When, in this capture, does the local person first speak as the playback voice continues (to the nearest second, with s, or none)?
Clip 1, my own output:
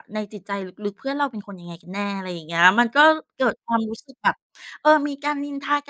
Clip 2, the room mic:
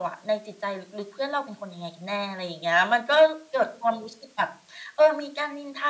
none